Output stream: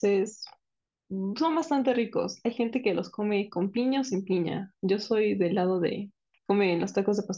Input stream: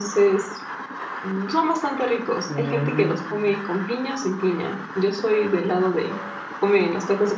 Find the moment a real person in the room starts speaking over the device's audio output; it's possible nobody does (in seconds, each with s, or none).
2.5 s